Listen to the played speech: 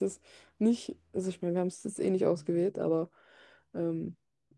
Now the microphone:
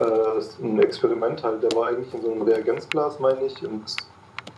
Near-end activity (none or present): present